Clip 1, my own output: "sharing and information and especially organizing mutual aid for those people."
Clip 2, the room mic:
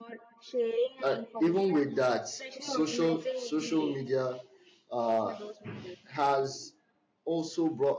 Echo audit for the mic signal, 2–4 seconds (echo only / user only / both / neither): both